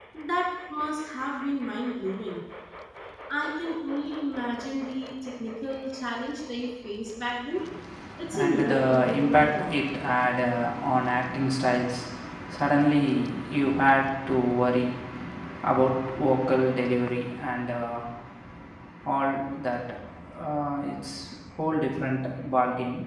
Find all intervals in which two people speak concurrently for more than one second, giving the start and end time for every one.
8.3-9.7

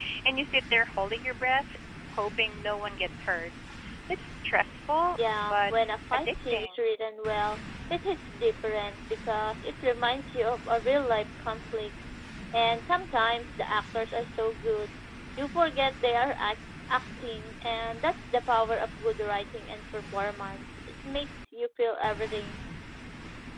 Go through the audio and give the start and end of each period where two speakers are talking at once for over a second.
5.3-6.8

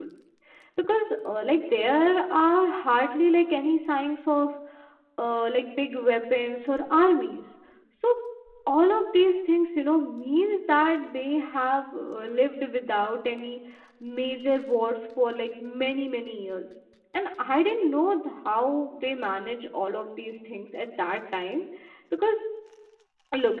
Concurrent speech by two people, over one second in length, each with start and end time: none

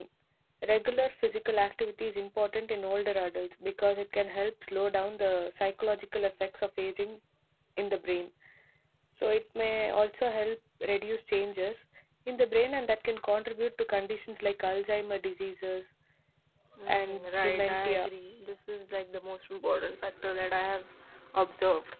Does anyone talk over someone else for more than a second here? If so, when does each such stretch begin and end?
16.9-18.1

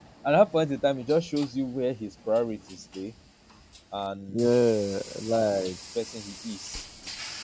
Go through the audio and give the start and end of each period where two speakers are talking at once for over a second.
none

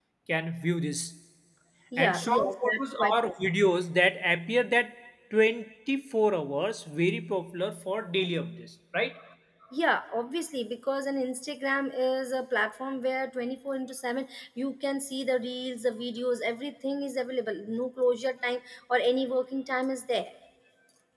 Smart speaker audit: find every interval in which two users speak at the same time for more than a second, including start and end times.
2.0-3.3

